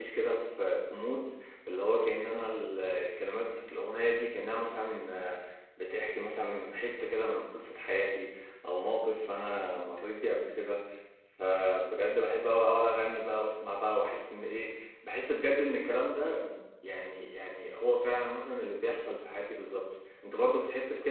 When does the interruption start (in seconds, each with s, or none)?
none